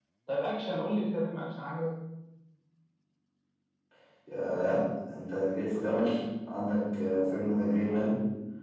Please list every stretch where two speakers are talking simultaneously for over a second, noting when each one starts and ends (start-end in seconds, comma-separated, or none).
none